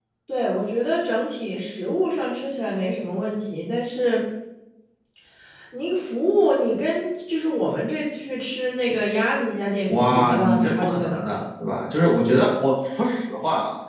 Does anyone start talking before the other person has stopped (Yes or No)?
Yes